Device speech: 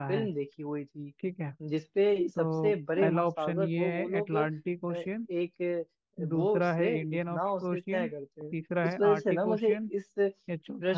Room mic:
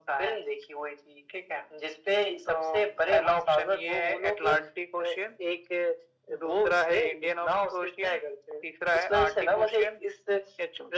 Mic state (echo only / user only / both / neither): echo only